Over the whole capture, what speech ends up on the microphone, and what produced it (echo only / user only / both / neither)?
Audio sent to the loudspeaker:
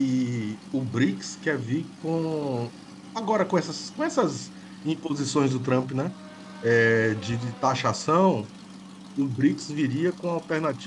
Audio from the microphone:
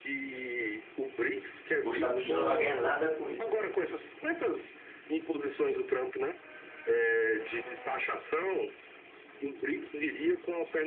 both